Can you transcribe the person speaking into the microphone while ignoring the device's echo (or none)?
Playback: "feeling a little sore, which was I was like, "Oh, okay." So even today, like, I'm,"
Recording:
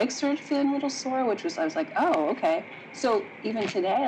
none